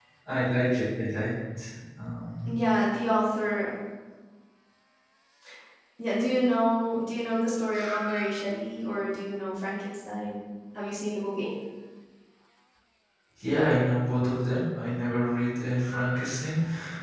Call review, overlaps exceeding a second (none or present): none